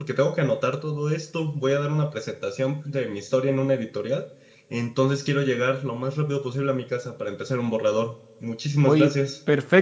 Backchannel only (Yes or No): No